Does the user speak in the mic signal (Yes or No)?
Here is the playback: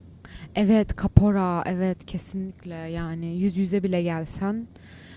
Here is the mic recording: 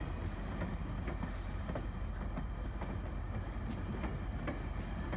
No